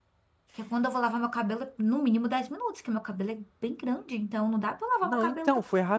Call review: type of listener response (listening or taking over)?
taking over